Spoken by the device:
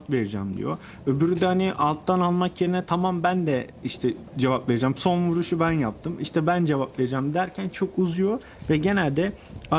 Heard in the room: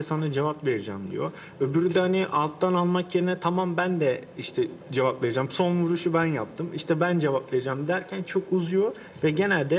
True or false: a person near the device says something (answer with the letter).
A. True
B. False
B